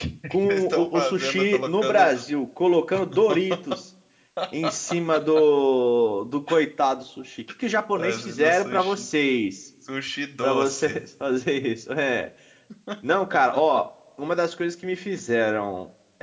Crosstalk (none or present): present